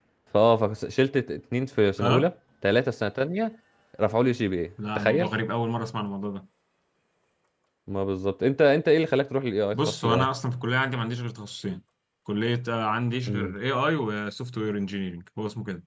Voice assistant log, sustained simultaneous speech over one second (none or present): none